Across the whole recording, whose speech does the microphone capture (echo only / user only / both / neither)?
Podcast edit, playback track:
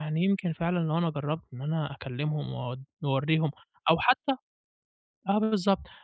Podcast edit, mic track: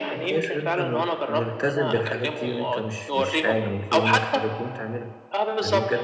both